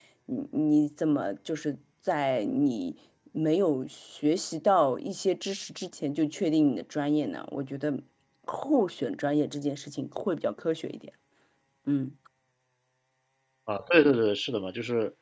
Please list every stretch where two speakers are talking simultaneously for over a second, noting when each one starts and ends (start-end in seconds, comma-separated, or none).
none